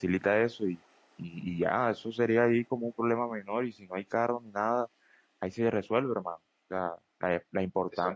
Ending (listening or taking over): listening